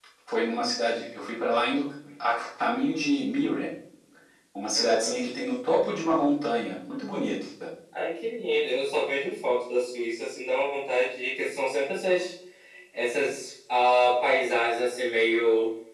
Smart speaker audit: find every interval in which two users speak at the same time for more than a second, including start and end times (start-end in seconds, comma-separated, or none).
none